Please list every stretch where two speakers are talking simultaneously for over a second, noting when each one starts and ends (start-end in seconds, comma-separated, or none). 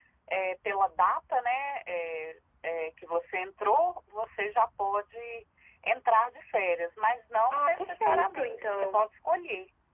7.5-9.1